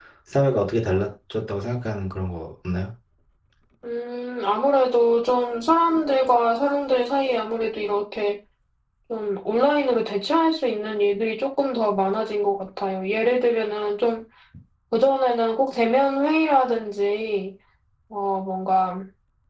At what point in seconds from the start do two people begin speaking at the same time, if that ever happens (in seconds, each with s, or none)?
none